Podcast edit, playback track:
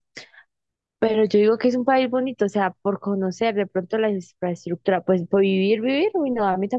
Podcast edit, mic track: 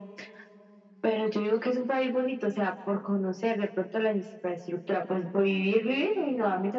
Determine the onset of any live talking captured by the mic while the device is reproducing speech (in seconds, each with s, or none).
none